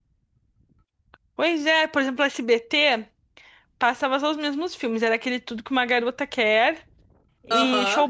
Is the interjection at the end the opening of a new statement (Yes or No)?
No